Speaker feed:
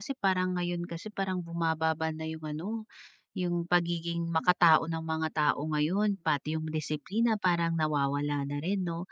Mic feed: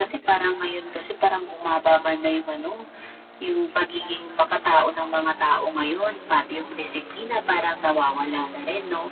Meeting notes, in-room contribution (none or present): none